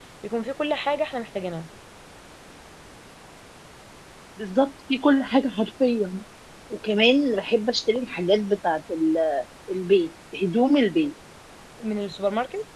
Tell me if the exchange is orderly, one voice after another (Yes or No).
Yes